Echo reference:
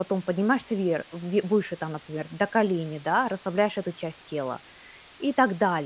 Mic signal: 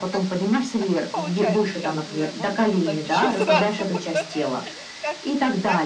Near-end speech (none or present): present